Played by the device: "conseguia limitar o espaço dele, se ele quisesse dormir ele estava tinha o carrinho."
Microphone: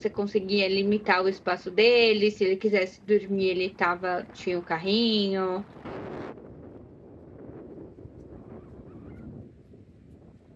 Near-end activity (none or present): none